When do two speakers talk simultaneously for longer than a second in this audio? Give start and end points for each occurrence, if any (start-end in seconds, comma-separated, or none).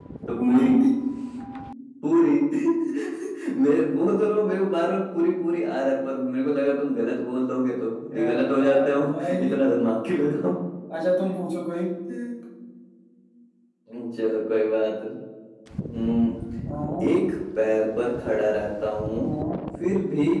8.1-9.6